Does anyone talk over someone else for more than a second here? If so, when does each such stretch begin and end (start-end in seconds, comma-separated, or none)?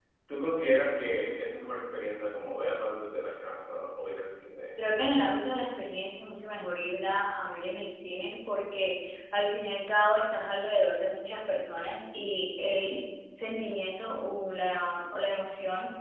none